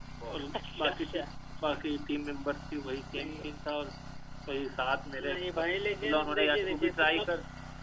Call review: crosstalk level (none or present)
present